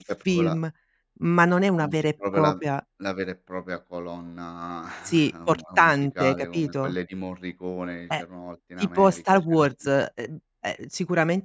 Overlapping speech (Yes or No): Yes